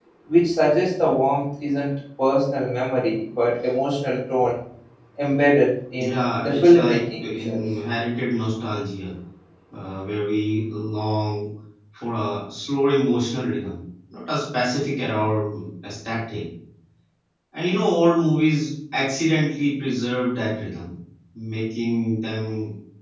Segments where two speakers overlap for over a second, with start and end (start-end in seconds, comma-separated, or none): 6.0-7.6